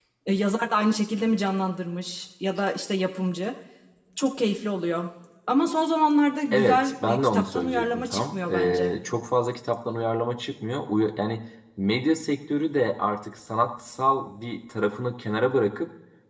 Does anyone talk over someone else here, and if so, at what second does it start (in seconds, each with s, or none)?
6.5 s